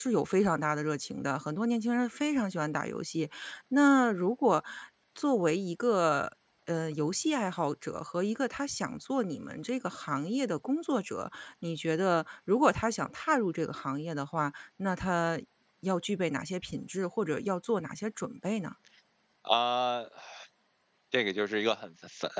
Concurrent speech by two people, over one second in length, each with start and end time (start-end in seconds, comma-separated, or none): none